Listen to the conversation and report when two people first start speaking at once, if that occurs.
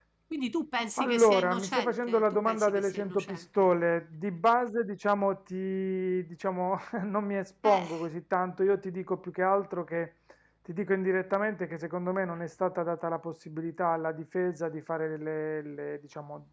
1.0 s

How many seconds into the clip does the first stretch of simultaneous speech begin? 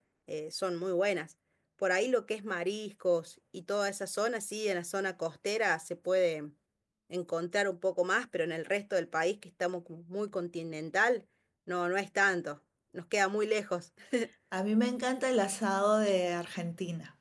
none

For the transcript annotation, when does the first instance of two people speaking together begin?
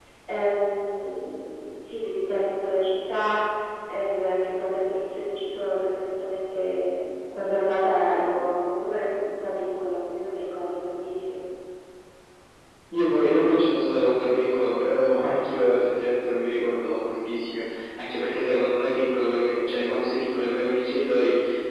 none

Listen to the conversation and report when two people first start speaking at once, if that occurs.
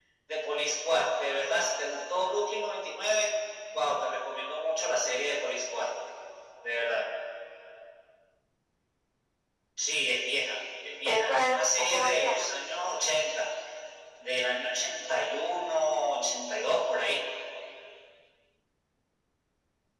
11.1 s

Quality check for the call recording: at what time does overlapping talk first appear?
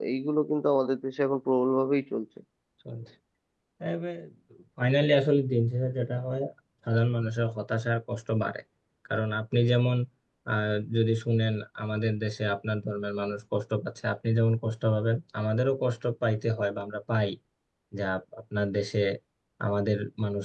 none

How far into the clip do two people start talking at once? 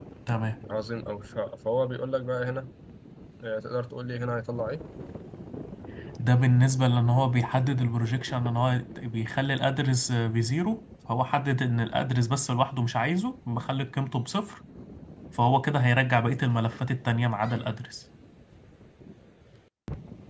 none

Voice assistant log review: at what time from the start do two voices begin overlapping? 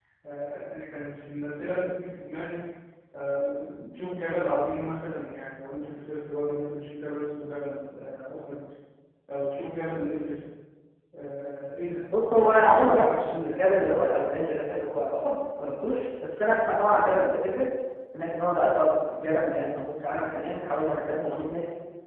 12.1 s

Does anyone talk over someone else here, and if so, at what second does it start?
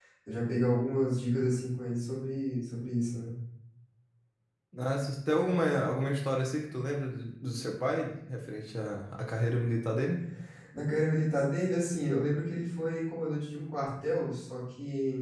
none

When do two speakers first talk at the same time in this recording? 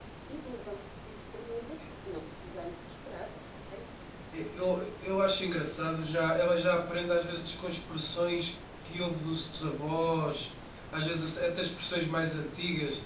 none

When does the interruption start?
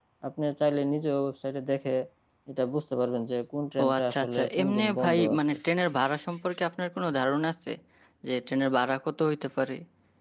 3.8 s

